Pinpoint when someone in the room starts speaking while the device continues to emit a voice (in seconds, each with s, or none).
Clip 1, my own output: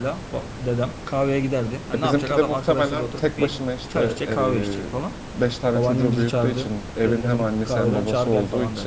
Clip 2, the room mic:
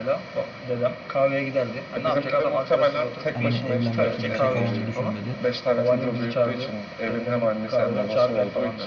3.3 s